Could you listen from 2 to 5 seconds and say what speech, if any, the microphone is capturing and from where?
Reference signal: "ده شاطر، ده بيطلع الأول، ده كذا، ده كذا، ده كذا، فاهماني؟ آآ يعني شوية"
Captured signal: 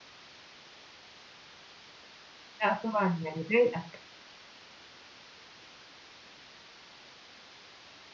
user only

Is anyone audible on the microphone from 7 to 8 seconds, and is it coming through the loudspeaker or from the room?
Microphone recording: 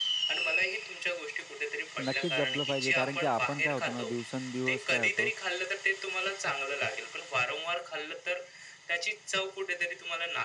echo only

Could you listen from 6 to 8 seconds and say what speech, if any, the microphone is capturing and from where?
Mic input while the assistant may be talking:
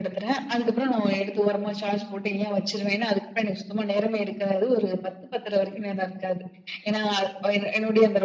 echo only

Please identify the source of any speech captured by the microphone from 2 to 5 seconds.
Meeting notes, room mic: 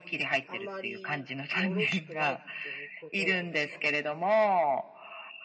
both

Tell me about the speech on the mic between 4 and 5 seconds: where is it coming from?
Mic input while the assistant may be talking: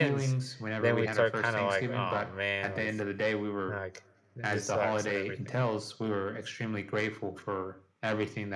both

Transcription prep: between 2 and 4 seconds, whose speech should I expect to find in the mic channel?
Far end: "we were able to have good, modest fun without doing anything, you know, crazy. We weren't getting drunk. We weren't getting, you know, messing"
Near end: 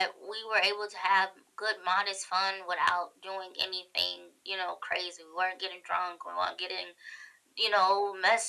echo only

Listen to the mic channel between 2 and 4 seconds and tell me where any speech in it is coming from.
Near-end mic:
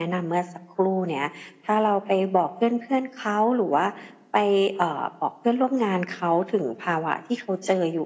echo only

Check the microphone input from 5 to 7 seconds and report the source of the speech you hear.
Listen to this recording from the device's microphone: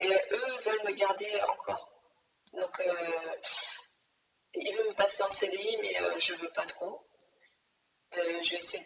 echo only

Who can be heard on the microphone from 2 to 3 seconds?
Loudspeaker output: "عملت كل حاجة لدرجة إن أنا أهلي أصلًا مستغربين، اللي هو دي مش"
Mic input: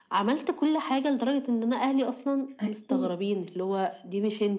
both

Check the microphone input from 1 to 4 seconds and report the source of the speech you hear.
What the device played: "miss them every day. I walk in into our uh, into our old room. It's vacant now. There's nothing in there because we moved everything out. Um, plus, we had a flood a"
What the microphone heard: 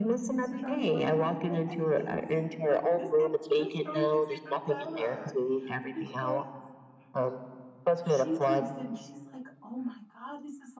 both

